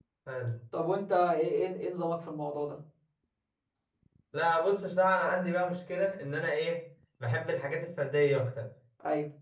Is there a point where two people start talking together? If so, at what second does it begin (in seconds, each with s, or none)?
none